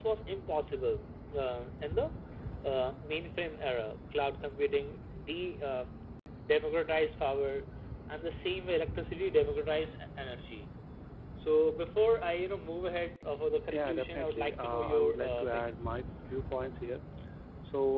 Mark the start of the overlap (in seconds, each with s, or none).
13.7 s